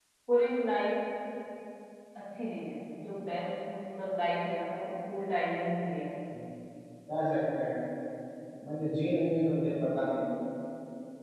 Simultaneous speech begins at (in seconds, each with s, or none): none